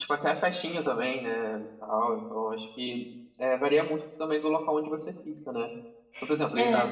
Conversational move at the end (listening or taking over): listening